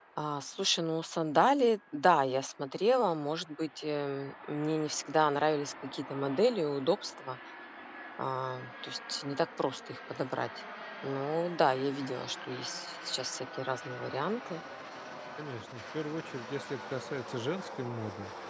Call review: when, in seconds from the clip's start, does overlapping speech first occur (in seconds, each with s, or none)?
none